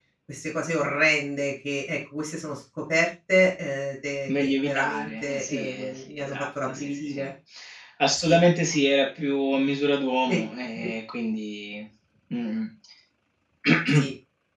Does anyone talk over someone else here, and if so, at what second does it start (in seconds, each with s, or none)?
4.4 s